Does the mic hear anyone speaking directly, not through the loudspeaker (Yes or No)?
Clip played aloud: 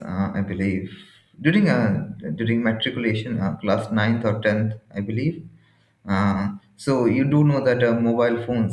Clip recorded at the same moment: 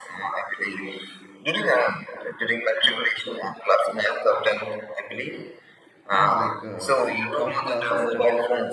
Yes